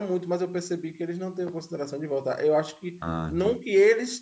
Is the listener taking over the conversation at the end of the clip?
No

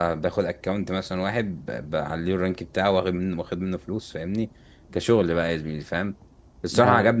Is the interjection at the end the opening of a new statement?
No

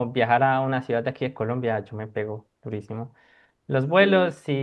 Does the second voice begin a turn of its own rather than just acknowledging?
No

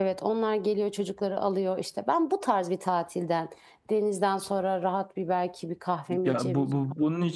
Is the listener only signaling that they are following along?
No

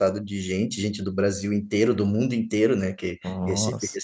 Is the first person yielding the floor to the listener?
No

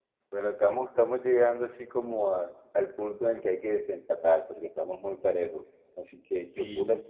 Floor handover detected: No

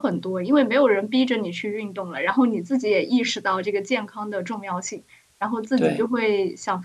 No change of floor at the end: Yes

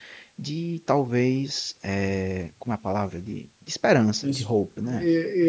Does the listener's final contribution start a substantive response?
Yes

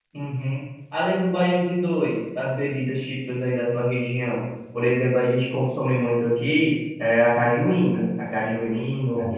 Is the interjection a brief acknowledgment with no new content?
Yes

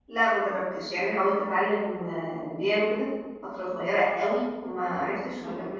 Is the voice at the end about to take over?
No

